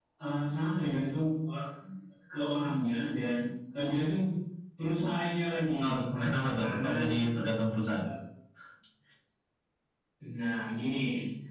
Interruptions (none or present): present